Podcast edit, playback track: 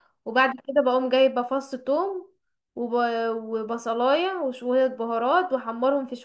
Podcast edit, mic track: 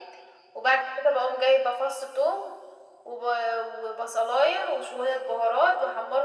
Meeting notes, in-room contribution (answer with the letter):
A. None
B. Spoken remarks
A